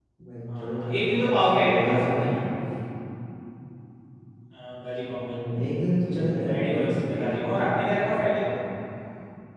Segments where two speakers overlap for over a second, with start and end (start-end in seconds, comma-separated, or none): 0.6-2.4, 6.1-8.3